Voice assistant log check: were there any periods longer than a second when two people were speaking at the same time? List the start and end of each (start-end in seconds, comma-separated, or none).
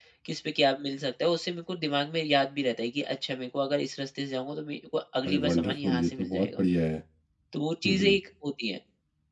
5.3-6.6